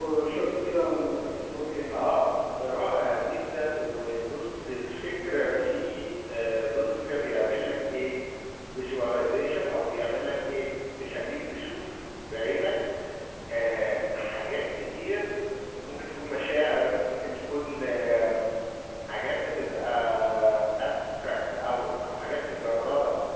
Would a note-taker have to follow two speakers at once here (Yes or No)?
No